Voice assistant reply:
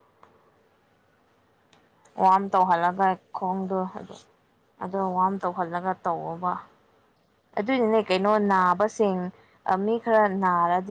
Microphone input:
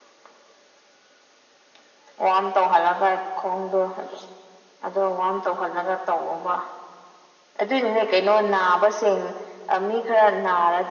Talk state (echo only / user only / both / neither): echo only